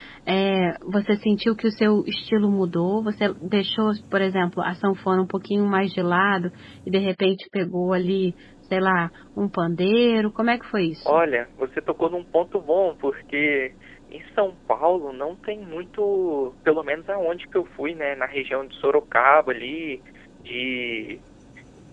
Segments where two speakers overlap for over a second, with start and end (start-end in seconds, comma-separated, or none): none